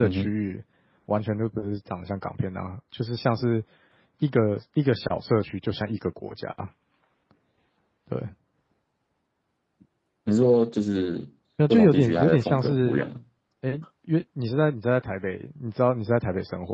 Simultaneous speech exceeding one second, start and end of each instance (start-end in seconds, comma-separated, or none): 11.7-13.0